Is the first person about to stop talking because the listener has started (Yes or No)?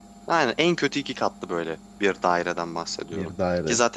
No